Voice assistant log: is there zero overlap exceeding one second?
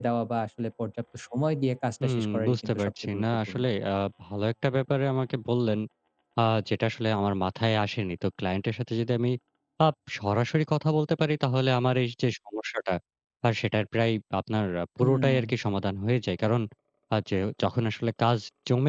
No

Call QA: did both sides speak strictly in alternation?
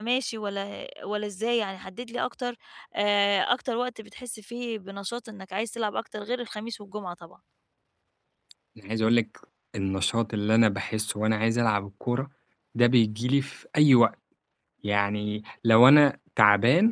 Yes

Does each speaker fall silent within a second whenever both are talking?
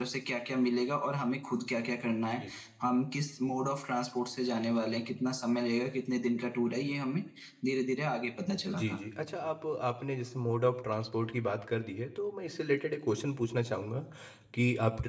Yes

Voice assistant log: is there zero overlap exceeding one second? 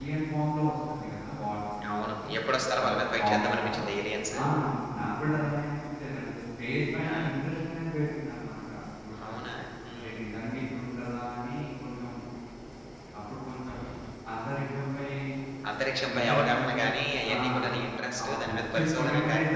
No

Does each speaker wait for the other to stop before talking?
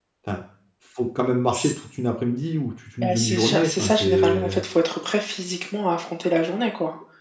No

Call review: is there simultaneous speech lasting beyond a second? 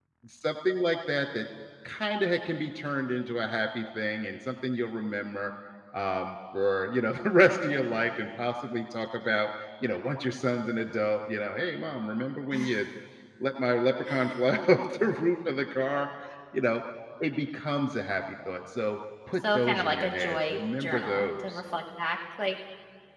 Yes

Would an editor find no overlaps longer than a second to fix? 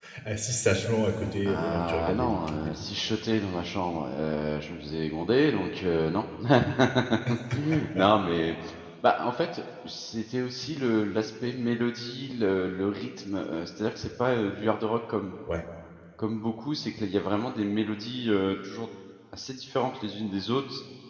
No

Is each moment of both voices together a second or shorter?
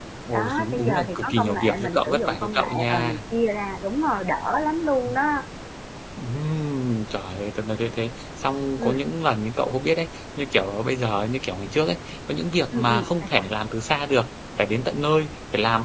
No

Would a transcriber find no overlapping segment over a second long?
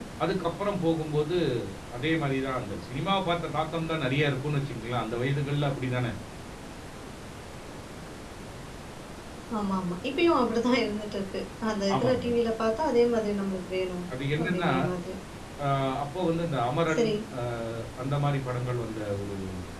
Yes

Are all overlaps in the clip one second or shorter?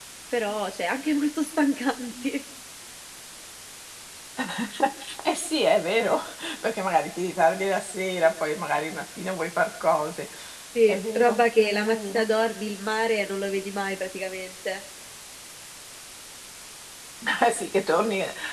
No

